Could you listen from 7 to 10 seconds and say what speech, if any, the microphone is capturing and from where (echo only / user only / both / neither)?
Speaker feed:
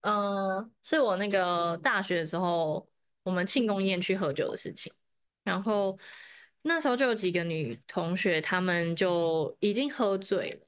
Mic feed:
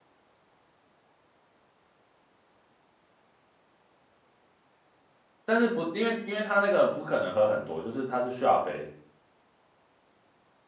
user only